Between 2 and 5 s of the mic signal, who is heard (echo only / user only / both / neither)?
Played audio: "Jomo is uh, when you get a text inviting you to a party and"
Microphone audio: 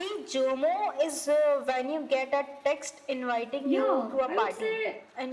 both